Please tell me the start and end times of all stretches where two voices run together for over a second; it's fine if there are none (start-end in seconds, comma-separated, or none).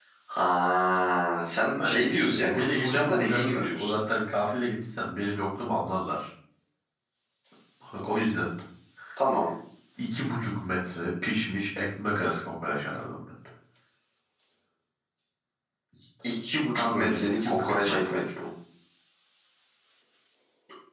1.8-4.0, 16.7-18.2